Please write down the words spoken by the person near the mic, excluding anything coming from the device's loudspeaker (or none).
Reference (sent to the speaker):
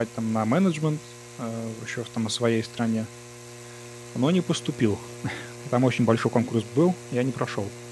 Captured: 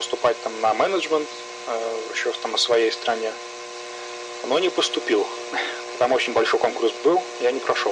none